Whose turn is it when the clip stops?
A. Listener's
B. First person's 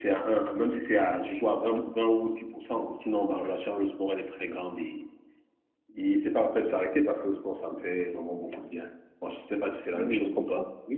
A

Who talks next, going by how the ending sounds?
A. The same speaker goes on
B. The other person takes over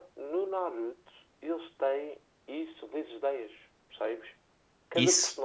A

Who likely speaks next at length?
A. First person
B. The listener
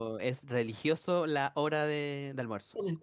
A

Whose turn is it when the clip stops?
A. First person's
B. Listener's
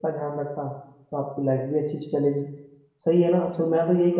A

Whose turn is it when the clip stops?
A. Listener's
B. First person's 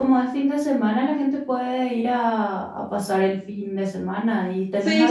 A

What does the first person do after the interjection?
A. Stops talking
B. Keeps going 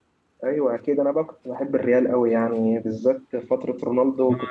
A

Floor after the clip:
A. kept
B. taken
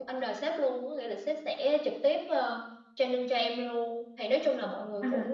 A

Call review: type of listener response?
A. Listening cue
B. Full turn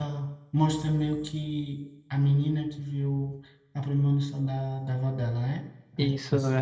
B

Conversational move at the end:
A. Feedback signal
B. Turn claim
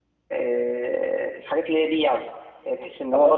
A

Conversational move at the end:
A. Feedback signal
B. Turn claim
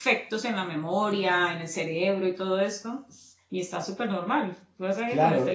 B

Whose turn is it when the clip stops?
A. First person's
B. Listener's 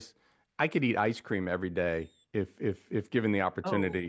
A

